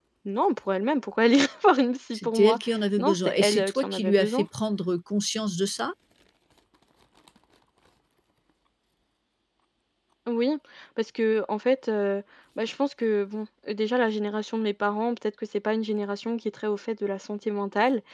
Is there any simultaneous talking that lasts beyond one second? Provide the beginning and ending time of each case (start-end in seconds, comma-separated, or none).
3.0-4.5